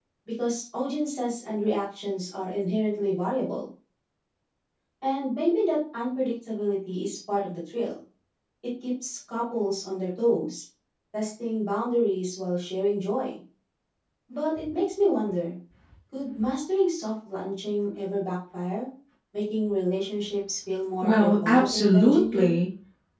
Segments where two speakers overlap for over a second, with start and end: 21.0-22.6

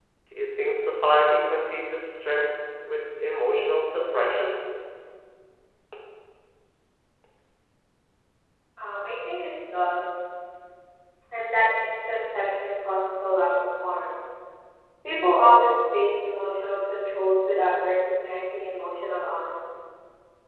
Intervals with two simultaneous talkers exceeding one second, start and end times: none

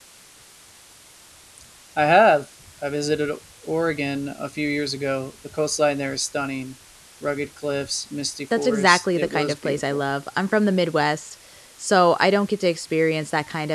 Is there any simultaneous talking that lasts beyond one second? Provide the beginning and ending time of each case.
8.6-10.0

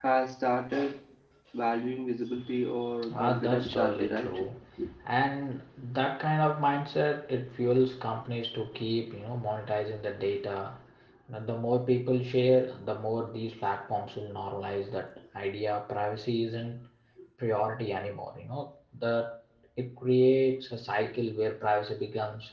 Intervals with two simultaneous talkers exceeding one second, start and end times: 3.1-4.4

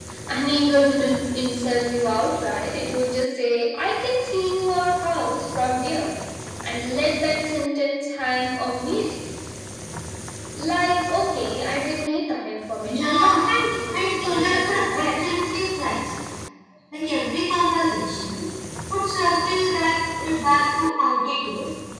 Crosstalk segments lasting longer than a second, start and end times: 13.9-15.2

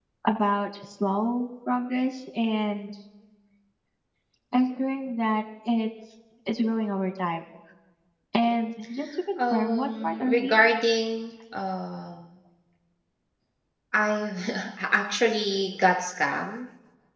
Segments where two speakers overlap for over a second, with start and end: 9.4-10.6

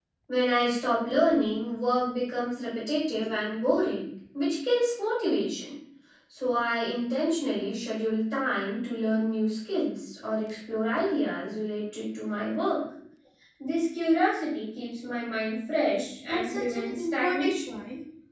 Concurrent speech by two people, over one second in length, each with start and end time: 16.2-17.6

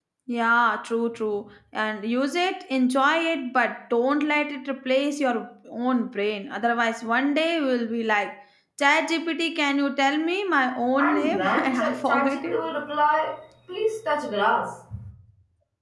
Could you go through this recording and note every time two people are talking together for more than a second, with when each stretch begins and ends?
11.0-12.6

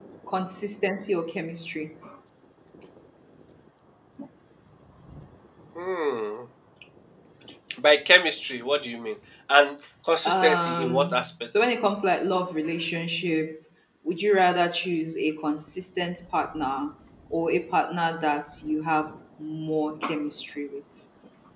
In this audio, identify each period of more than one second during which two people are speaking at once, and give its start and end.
10.2-11.6

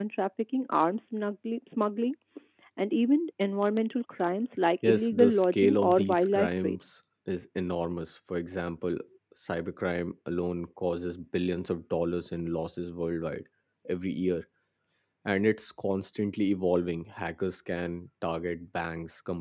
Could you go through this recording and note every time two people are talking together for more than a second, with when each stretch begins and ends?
4.9-6.8

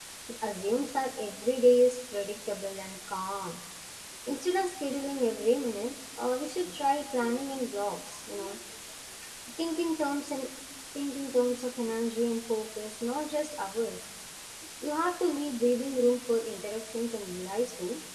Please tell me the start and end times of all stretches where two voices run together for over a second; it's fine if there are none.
none

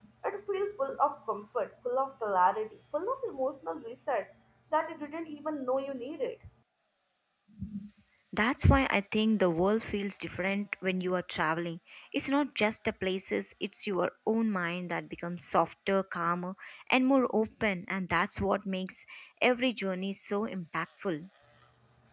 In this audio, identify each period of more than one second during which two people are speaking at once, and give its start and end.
none

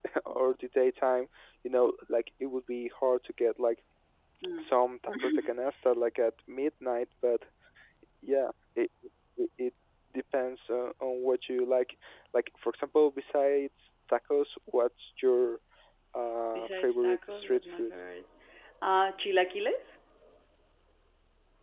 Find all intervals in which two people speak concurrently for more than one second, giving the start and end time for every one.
16.5-17.9

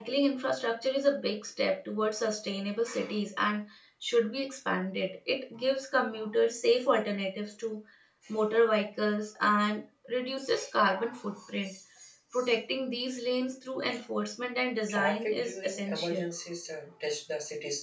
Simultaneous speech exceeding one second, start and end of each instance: 14.9-16.2

